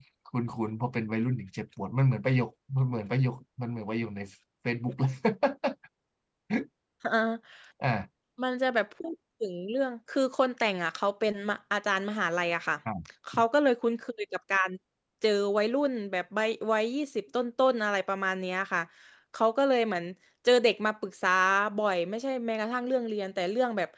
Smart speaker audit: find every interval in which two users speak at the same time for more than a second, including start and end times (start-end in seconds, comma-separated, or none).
none